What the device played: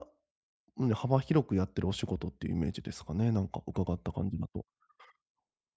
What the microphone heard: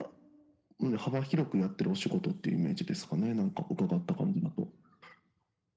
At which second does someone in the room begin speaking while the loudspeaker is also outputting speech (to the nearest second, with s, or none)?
none